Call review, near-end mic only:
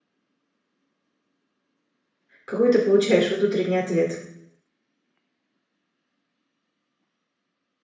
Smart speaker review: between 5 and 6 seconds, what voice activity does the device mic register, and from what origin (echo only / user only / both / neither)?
neither